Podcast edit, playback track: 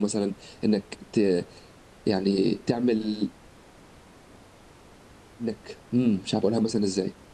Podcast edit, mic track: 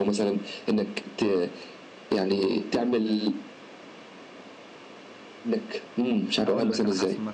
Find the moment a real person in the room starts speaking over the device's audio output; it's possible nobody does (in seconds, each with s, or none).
6.4 s